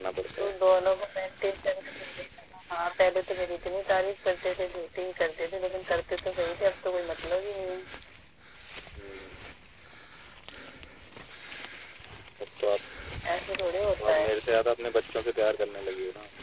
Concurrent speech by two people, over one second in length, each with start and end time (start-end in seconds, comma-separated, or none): none